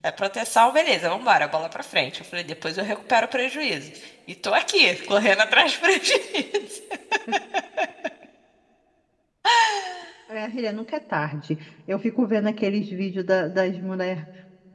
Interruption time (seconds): none

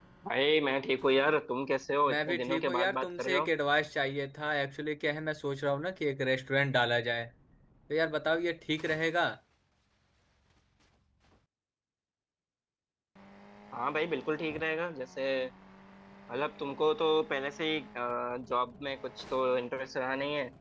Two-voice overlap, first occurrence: 2.0 s

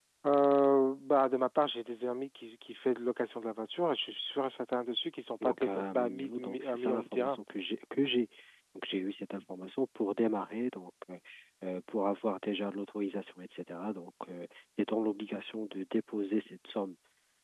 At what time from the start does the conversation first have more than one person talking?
5.4 s

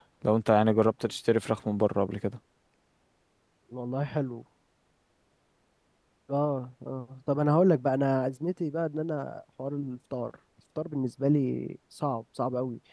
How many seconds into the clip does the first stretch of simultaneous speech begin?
none

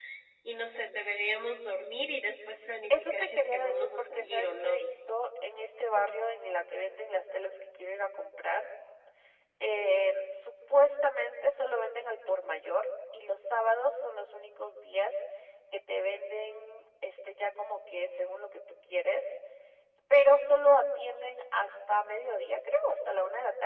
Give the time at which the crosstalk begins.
2.9 s

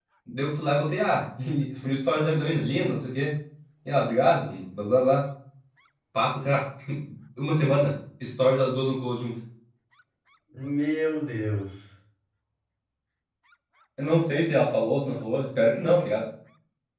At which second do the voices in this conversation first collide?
none

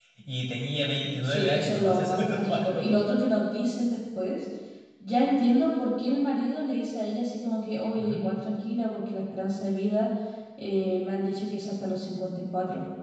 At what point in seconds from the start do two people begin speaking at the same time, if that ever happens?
1.2 s

